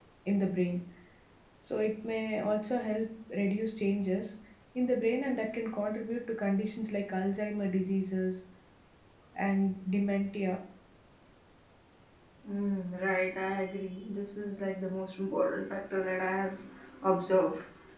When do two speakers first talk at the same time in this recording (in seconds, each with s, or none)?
none